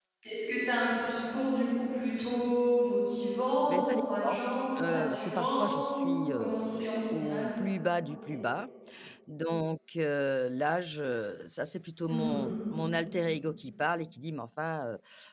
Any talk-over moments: Yes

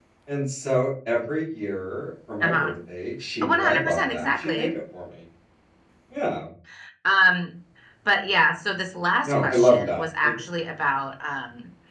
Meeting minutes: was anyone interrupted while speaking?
Yes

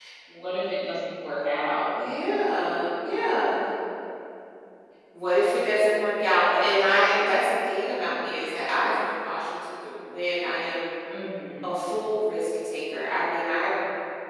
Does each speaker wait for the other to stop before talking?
Yes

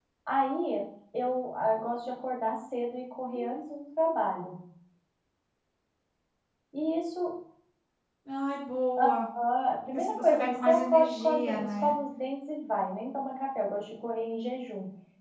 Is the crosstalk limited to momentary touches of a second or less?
No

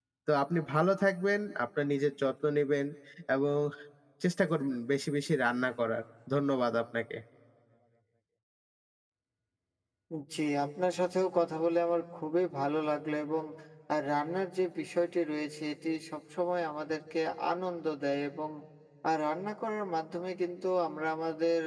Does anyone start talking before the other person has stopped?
No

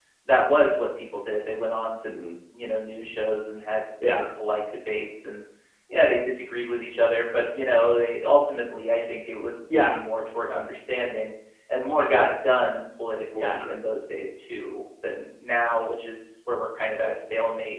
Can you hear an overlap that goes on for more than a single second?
No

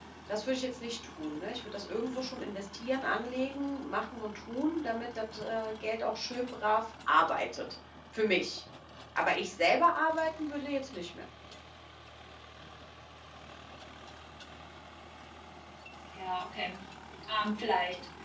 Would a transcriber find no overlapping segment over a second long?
Yes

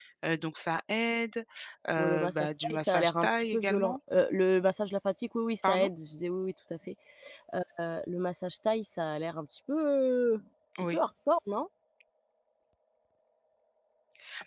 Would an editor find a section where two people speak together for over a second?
Yes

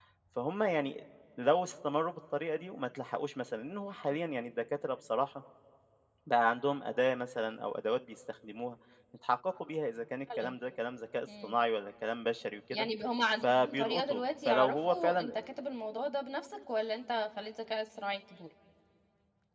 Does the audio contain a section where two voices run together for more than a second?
Yes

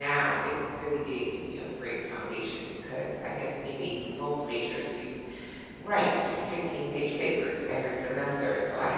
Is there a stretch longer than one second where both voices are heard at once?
No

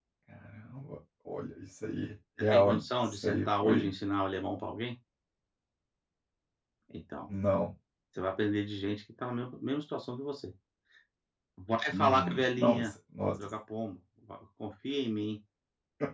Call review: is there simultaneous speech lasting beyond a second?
Yes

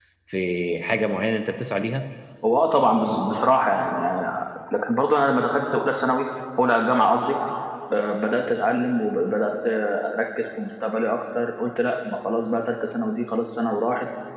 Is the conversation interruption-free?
Yes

